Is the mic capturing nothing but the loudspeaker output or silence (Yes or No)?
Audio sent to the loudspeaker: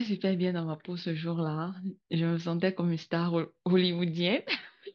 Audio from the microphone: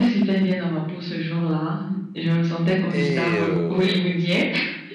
No